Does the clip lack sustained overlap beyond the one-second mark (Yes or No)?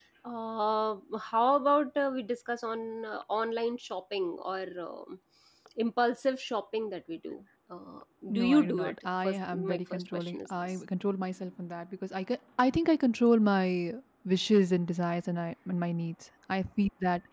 No